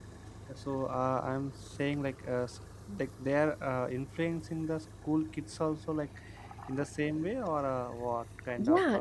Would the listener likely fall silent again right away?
No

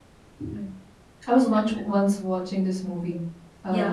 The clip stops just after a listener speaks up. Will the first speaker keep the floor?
Yes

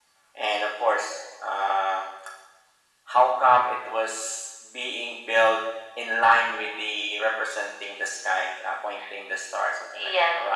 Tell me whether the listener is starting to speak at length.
Yes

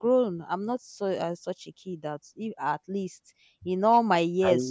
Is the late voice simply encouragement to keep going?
Yes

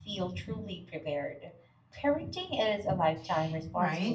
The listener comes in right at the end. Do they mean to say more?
Yes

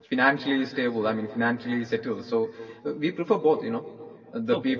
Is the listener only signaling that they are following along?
Yes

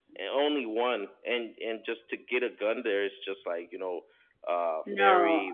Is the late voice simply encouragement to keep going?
Yes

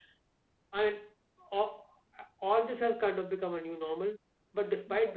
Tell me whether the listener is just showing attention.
Yes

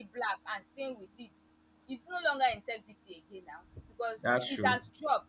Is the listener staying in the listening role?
Yes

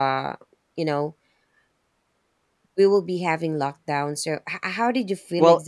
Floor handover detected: Yes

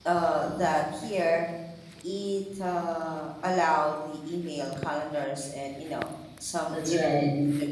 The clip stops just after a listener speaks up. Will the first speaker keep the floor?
No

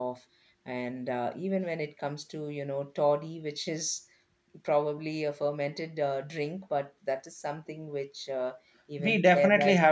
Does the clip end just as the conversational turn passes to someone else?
Yes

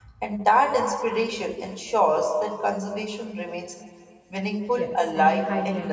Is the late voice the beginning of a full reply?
Yes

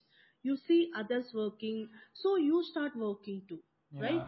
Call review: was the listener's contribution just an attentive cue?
No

